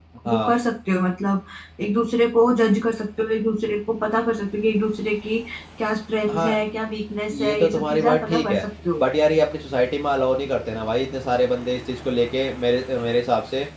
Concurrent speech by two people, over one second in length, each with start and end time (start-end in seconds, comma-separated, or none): 7.4-8.6